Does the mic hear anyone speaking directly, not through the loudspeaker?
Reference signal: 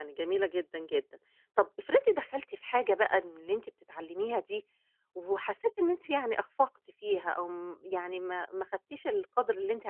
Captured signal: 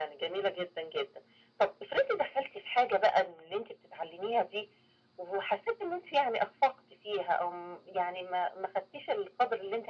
No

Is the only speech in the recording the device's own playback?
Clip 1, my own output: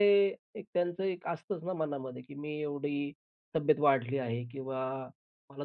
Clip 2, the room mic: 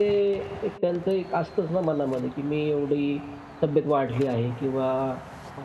Yes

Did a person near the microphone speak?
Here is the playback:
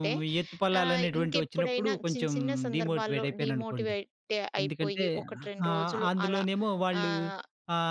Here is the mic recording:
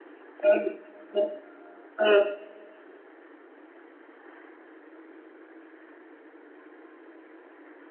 Yes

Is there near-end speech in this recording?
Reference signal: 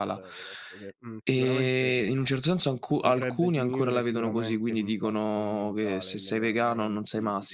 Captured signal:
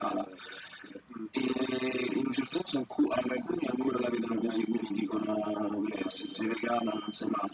No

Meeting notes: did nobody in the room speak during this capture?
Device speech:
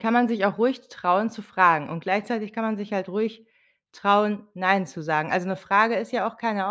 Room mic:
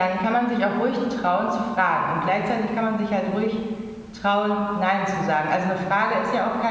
Yes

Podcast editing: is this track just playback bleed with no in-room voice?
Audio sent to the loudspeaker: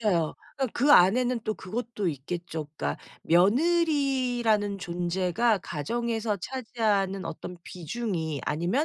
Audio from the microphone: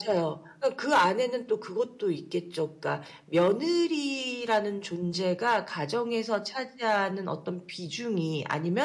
Yes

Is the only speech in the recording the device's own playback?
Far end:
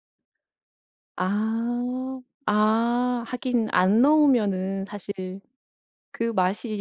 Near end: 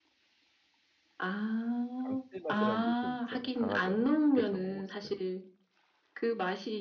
No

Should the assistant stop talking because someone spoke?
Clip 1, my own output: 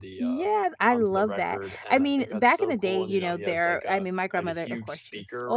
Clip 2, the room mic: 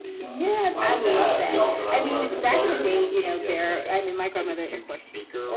Yes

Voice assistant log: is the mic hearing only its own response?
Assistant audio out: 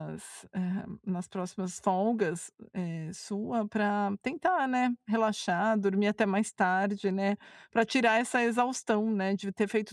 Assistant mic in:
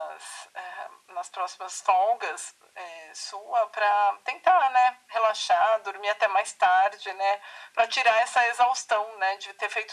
Yes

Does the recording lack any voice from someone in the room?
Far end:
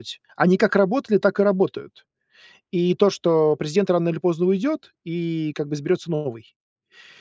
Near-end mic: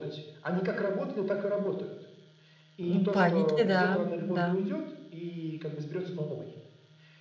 No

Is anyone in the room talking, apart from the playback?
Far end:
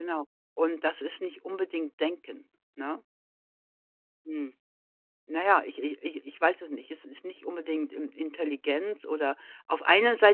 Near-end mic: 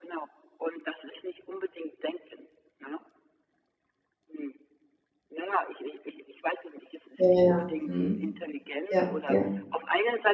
Yes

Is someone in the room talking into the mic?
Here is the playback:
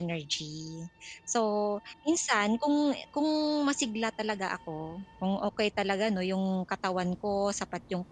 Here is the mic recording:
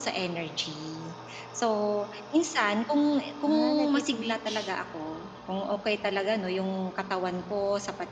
Yes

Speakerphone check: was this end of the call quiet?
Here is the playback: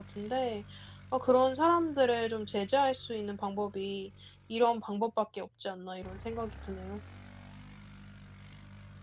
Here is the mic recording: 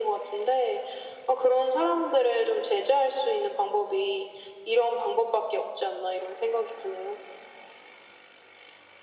Yes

